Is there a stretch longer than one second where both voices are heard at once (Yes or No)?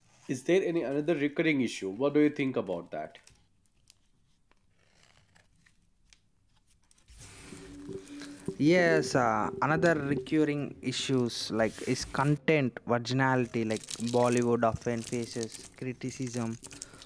No